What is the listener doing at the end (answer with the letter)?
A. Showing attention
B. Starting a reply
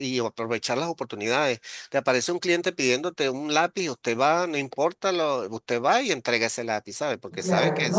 B